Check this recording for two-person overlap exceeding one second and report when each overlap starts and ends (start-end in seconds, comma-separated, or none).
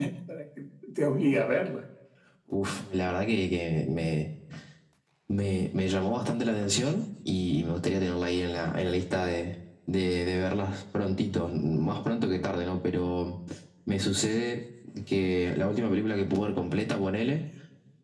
none